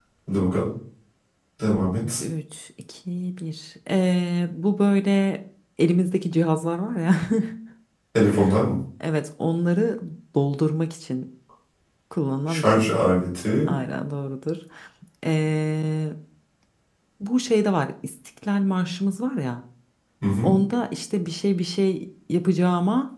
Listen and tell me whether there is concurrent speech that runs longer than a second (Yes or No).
No